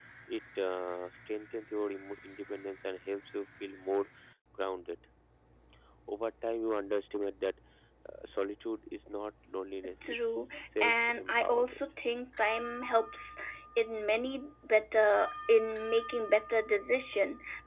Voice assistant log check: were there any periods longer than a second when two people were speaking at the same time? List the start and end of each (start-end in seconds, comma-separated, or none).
10.0-11.8